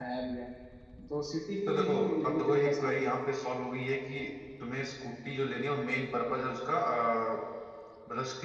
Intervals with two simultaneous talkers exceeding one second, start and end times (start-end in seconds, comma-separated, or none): 1.7-3.1